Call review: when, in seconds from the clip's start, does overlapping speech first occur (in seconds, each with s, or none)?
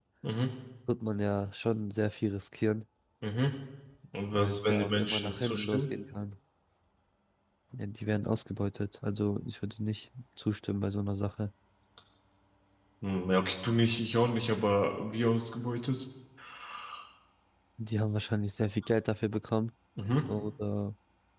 4.3 s